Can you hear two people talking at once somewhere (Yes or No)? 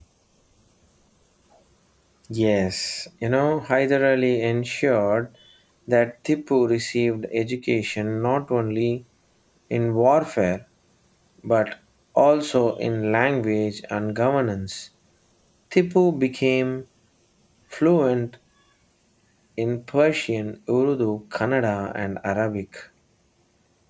No